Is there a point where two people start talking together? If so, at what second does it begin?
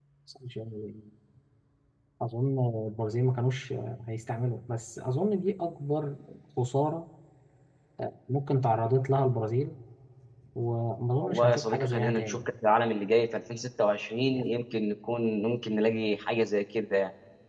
11 s

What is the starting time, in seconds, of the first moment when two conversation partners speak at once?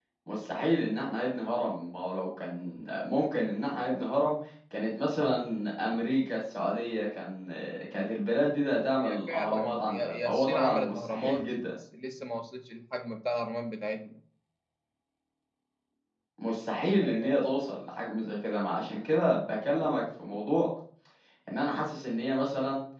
9 s

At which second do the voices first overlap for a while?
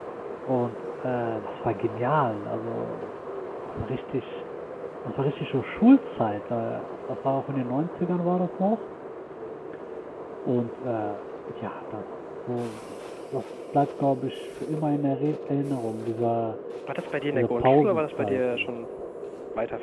17 s

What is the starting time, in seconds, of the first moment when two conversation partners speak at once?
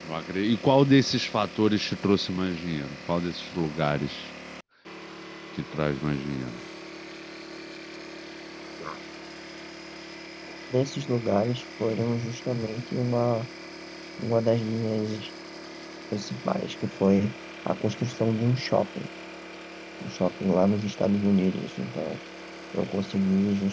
none

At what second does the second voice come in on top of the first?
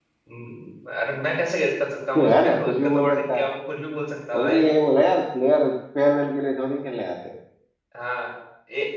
2 s

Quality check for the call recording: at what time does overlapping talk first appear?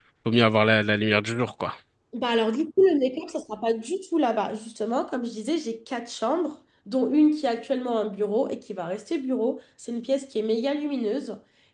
none

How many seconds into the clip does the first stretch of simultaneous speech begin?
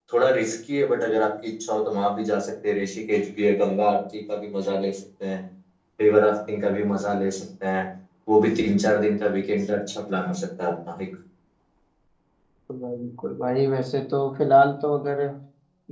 none

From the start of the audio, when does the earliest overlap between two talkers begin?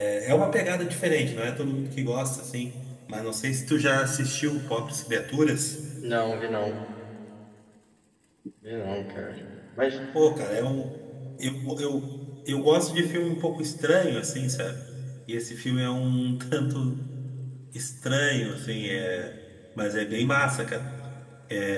none

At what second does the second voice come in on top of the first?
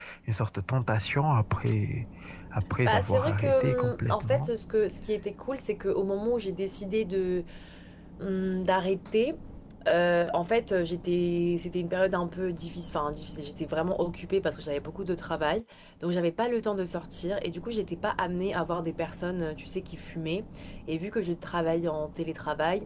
3 s

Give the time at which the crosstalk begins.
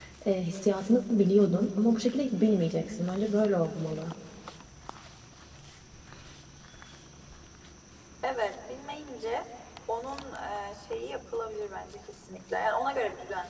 none

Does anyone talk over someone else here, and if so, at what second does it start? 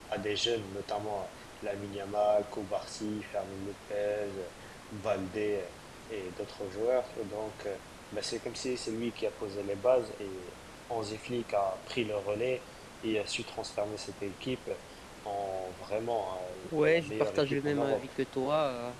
17 s

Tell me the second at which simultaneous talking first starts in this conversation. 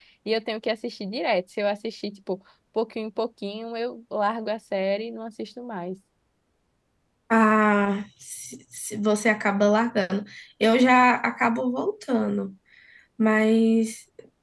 none

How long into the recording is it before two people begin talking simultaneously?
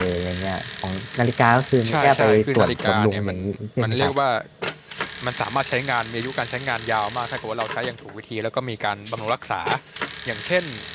2 s

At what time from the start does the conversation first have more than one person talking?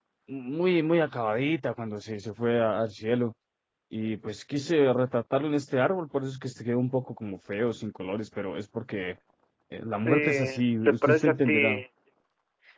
10 s

